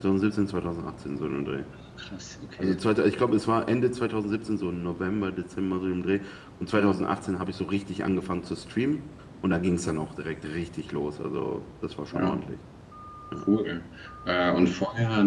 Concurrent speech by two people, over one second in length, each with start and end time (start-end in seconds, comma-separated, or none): none